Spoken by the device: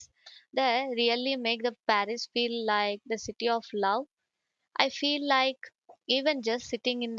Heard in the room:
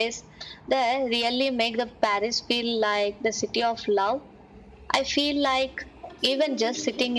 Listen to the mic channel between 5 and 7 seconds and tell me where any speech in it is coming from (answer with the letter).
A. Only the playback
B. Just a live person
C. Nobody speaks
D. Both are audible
D